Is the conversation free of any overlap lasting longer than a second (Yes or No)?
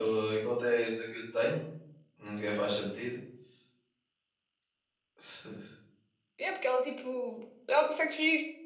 Yes